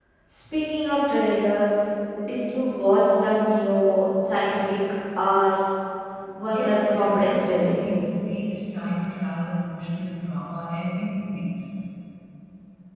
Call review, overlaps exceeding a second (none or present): present